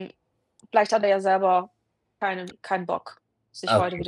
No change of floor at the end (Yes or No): No